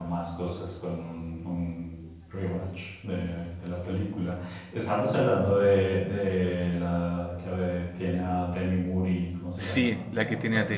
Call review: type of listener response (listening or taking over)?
taking over